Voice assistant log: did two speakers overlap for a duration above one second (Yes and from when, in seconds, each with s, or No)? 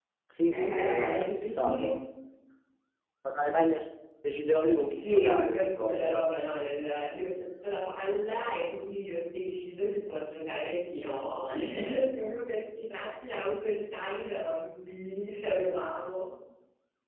Yes, from 0.5 s